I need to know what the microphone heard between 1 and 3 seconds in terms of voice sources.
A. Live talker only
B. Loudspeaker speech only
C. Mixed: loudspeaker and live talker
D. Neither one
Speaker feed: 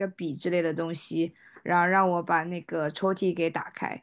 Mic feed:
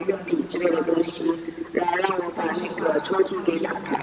C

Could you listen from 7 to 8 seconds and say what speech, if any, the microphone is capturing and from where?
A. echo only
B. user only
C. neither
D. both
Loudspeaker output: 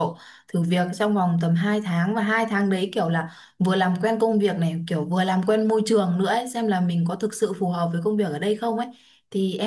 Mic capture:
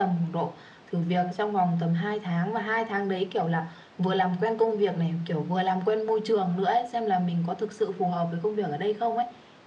A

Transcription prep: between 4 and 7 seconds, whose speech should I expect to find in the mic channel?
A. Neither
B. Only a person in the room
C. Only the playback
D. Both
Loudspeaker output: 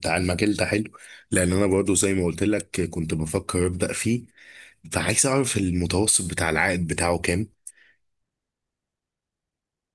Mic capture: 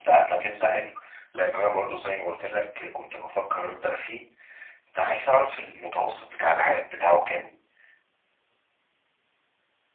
C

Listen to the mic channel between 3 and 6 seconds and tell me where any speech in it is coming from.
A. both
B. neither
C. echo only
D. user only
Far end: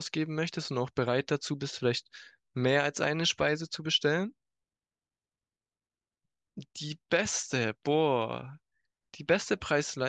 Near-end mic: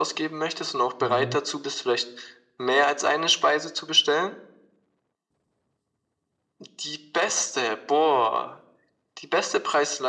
C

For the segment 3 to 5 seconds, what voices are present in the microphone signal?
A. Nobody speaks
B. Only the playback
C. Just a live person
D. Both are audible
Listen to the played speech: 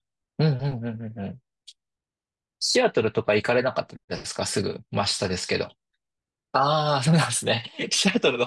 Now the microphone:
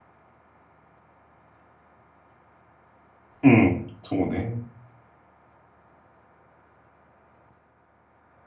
C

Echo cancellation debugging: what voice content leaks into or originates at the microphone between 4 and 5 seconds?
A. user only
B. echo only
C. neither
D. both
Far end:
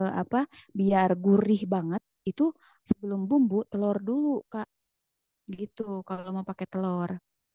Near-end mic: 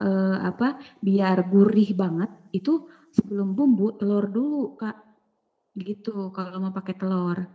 B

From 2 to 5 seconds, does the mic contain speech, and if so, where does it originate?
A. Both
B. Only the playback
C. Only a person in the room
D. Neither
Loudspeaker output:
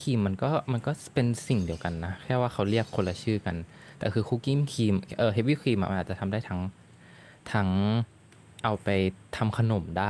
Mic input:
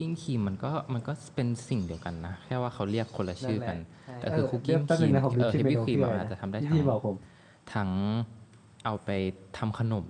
A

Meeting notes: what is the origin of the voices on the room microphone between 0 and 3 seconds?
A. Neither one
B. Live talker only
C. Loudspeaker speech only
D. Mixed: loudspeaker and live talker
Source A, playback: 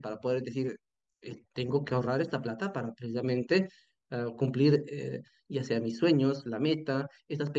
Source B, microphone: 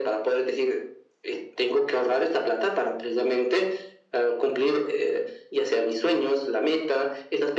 C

